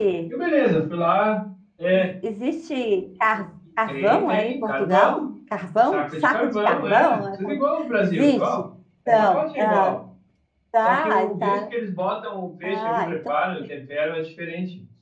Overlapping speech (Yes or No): Yes